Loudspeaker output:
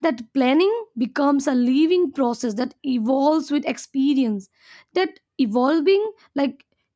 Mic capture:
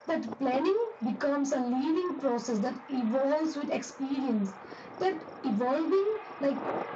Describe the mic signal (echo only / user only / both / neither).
echo only